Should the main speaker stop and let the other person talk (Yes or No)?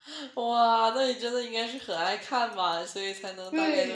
Yes